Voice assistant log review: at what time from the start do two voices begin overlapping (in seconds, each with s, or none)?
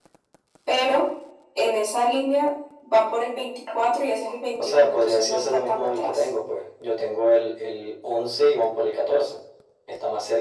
4.6 s